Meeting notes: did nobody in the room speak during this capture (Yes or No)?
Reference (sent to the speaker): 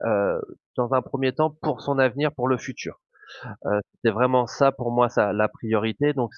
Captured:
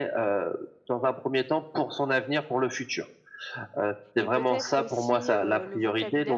No